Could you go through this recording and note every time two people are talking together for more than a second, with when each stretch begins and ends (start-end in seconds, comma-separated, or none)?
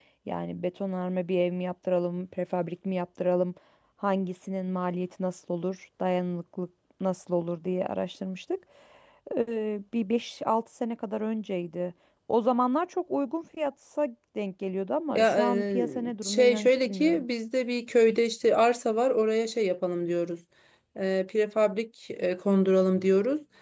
15.1-17.2